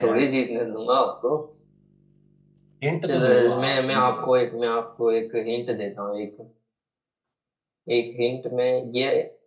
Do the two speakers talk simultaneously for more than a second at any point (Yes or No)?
Yes